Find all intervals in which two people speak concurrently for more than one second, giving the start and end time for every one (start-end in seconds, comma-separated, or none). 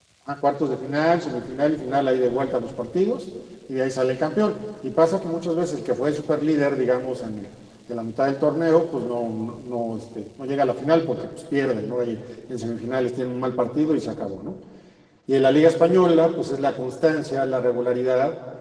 none